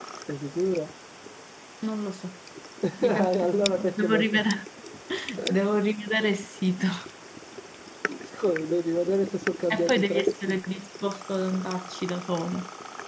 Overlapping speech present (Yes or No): Yes